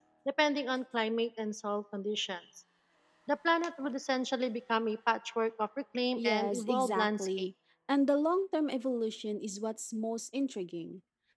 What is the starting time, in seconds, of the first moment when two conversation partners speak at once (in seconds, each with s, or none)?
6.2 s